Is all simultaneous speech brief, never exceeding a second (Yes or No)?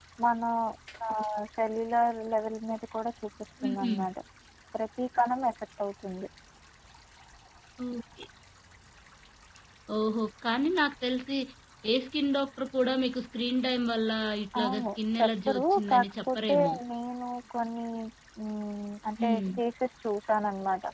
No